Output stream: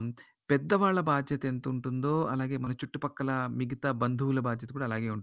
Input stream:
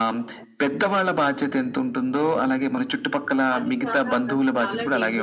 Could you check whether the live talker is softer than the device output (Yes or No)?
Yes